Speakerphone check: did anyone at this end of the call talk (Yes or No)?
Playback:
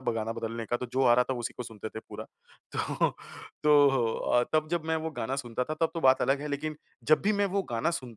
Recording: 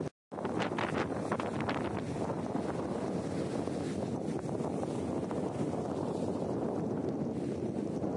No